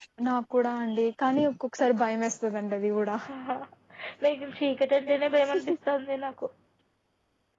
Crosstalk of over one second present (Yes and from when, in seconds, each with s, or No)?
No